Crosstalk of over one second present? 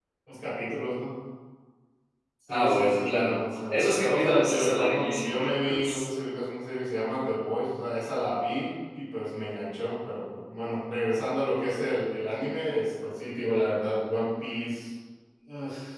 Yes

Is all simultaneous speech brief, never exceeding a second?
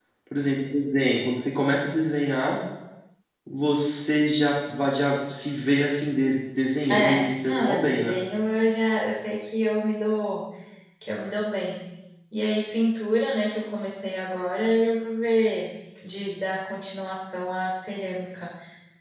No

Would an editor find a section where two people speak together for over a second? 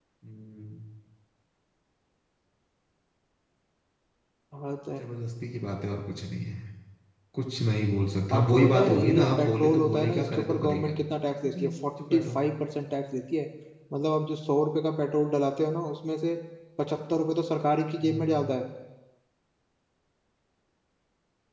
Yes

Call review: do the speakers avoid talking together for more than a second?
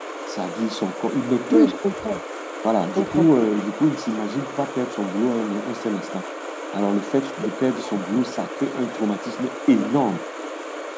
Yes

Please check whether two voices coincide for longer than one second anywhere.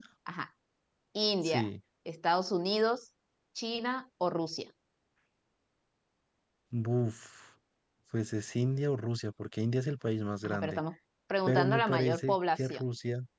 Yes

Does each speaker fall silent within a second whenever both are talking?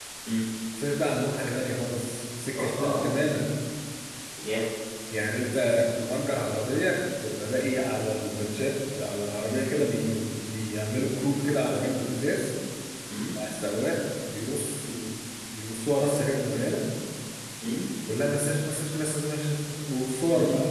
Yes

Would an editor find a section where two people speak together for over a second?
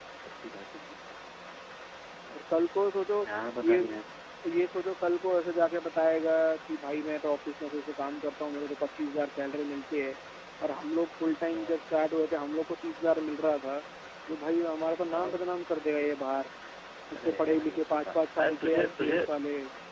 Yes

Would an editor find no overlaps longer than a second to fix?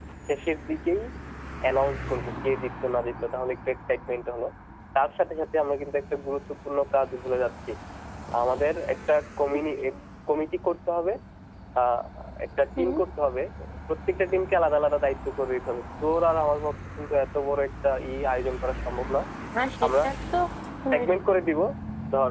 Yes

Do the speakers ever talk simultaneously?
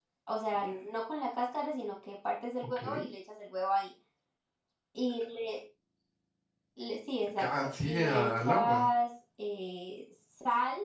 Yes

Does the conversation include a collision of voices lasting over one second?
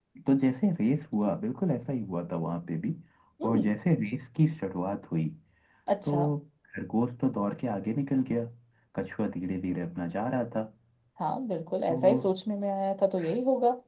No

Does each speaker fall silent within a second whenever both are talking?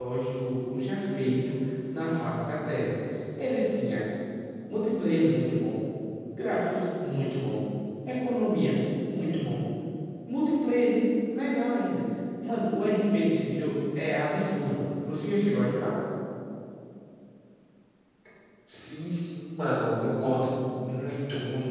Yes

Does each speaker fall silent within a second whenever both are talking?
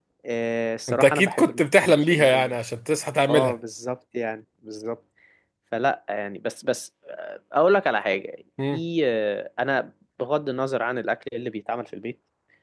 No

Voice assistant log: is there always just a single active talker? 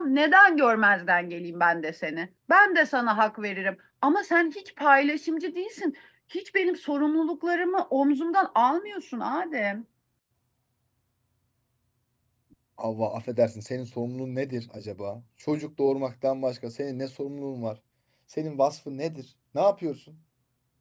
Yes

